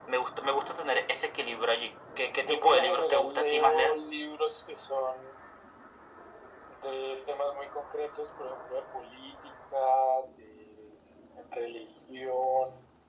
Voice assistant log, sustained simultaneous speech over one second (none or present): present